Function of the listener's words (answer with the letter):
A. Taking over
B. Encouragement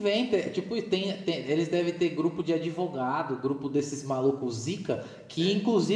B